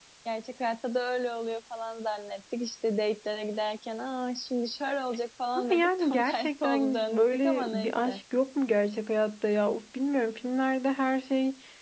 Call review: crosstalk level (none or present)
present